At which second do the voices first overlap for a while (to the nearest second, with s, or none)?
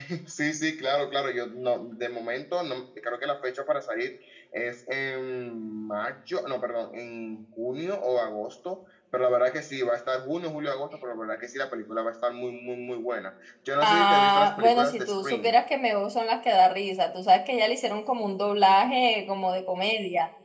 14 s